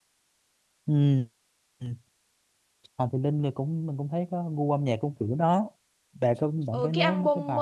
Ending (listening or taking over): taking over